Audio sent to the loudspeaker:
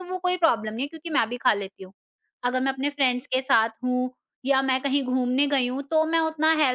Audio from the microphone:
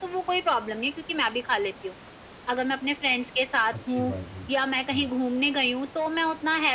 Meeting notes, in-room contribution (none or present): present